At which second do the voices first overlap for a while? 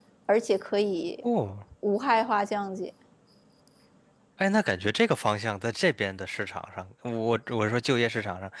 none

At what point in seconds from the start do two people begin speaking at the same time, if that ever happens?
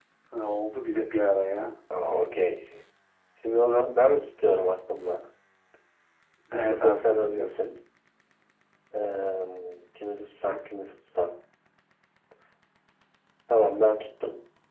6.5 s

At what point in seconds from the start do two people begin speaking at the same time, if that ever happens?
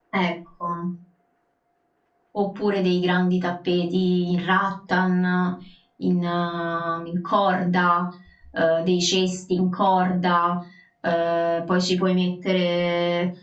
none

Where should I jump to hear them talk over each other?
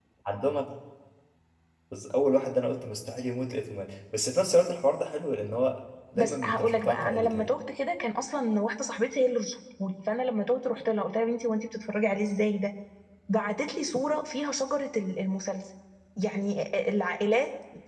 6.2 s

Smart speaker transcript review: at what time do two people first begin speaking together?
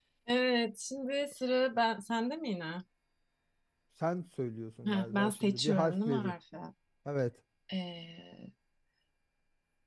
4.8 s

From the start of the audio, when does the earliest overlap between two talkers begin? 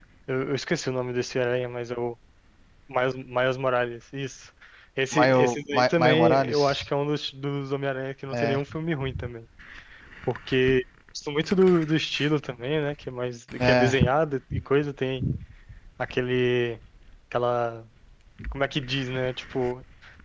5.1 s

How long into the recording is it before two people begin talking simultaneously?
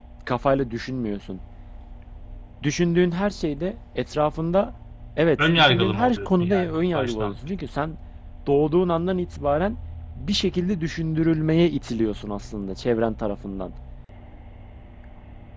5.6 s

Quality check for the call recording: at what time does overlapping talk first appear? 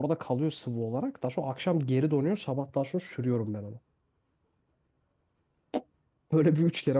none

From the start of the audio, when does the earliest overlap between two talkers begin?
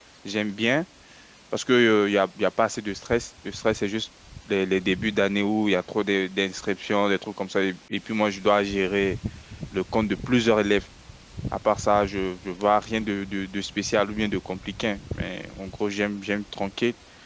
none

